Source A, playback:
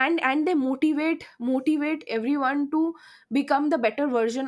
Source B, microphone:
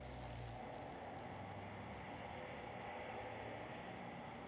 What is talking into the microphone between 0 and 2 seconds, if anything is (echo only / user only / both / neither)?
neither